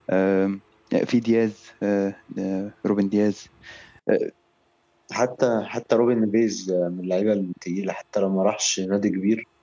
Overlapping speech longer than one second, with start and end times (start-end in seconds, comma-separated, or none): none